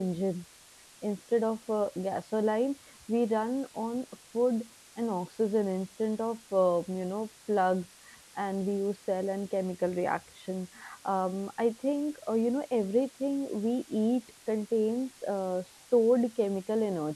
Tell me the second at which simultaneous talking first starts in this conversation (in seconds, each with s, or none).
none